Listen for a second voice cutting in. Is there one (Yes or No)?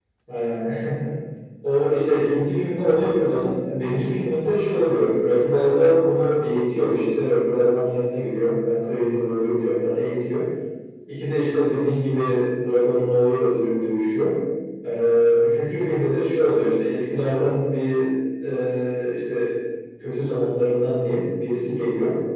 No